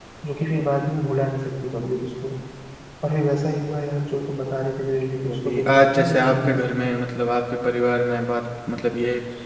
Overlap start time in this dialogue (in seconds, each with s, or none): 5.2 s